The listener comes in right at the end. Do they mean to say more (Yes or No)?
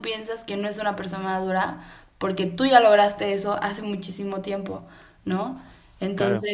No